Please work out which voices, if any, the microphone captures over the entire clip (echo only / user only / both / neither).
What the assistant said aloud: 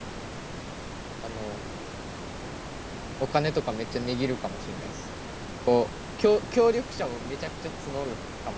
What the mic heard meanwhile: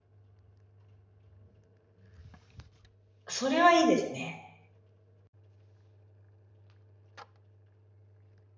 user only